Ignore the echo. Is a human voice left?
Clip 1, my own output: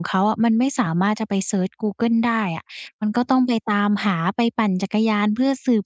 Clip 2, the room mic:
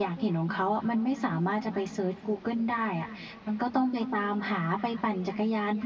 No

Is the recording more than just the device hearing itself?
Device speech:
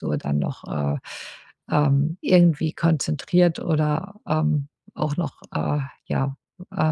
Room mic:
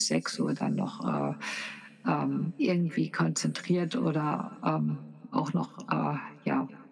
No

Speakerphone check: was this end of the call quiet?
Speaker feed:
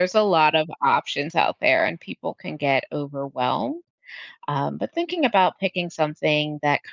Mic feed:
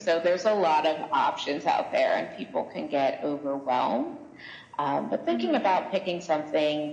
No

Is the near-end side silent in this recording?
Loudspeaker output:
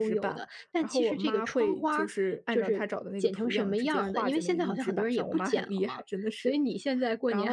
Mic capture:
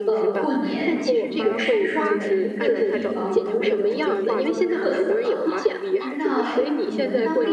No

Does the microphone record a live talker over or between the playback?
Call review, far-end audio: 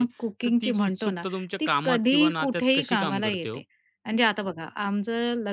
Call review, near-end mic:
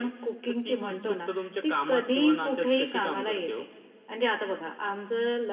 No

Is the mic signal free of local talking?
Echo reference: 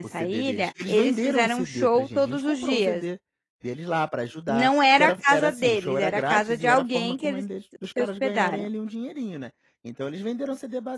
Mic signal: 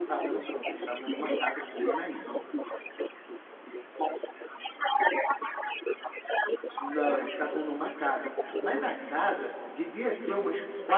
No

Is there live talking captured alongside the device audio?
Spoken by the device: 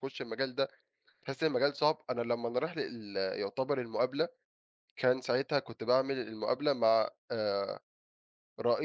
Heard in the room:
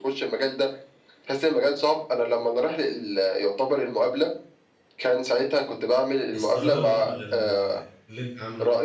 Yes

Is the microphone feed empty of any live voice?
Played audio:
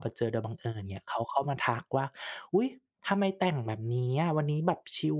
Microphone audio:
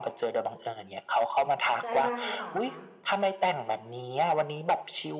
No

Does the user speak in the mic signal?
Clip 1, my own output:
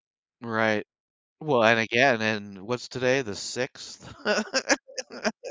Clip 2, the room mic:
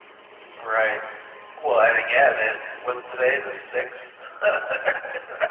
No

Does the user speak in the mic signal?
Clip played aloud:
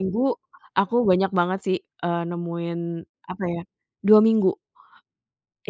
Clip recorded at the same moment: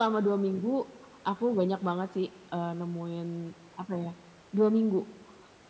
No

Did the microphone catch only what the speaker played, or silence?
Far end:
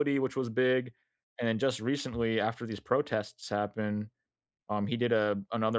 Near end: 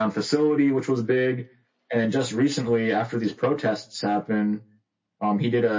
Yes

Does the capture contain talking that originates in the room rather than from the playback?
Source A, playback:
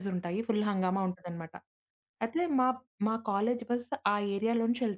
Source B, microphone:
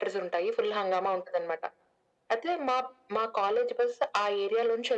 No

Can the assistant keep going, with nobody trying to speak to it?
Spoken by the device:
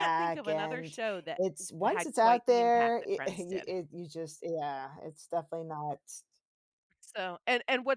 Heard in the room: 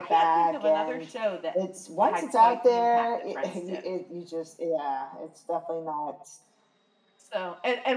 Yes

